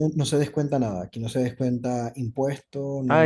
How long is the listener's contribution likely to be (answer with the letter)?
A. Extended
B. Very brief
A